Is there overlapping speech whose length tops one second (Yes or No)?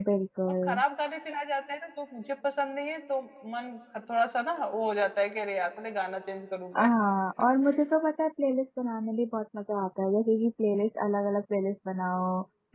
No